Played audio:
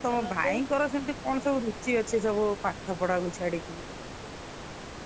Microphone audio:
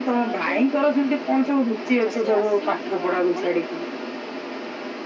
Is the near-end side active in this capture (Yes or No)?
Yes